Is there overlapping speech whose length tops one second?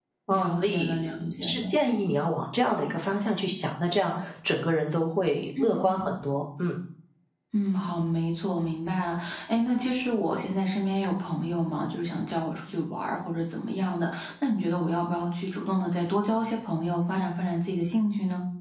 Yes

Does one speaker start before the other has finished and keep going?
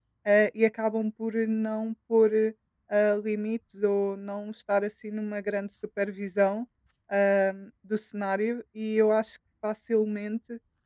No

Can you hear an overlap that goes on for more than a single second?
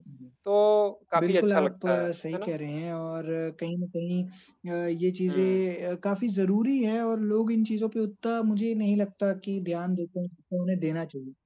Yes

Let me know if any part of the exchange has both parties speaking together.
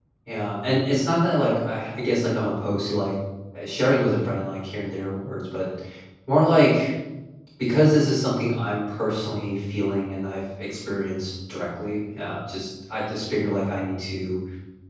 No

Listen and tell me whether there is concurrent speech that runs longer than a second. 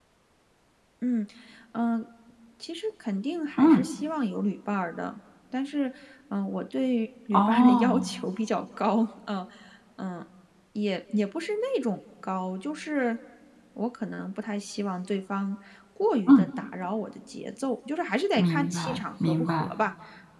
Yes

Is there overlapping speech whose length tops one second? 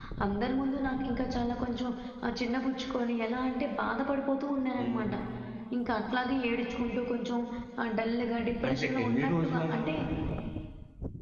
Yes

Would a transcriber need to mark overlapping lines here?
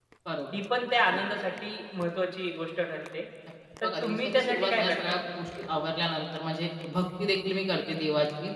Yes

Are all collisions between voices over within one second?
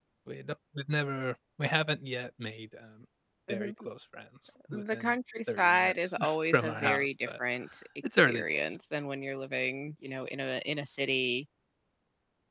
No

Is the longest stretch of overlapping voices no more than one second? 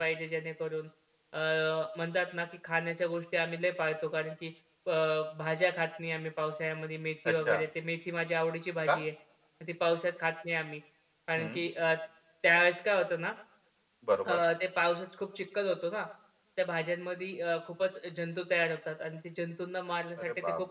Yes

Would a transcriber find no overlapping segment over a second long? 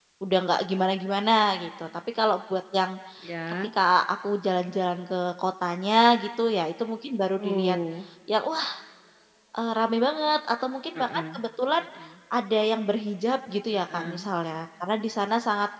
Yes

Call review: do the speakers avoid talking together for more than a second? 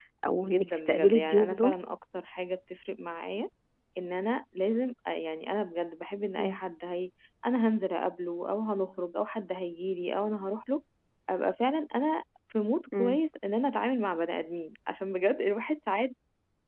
No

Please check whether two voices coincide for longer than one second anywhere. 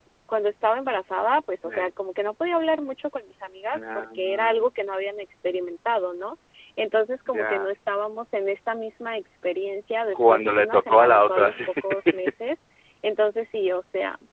Yes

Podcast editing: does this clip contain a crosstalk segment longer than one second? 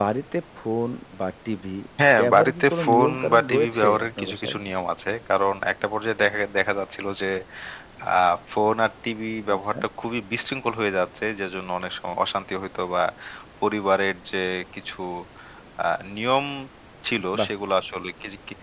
Yes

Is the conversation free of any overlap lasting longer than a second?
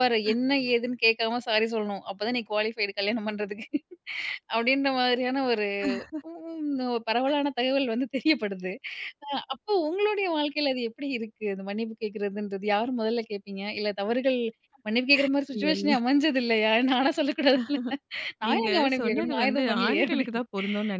No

